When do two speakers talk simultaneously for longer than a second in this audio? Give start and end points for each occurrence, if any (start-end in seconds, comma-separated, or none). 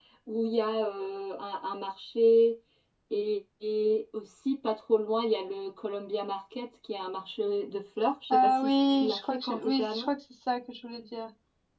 8.3-10.1